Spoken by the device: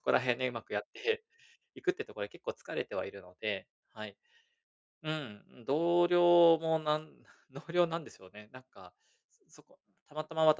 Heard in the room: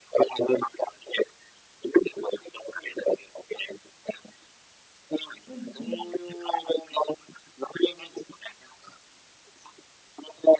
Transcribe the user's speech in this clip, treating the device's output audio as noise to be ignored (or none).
うん、うん。